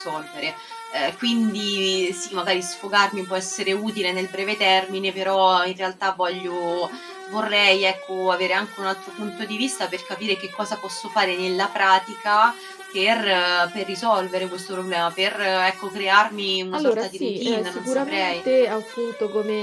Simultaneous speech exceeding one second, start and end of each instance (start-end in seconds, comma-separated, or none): 16.8-18.5